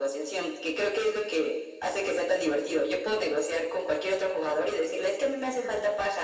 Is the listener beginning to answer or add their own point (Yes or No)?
No